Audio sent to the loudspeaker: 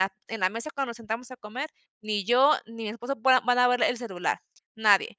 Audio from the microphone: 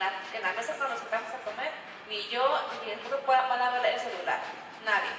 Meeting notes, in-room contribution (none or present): none